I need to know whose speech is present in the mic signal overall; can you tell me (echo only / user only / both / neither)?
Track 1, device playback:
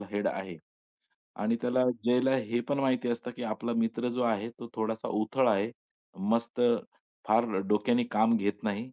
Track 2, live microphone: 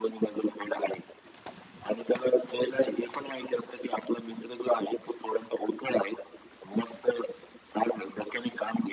echo only